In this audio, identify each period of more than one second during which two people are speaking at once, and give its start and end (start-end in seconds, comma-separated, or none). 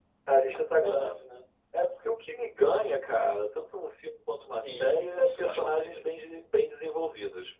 4.6-6.0